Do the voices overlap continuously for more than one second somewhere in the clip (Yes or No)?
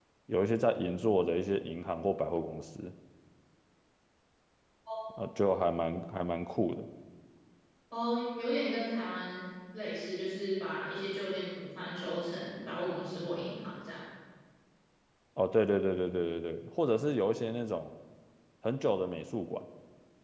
No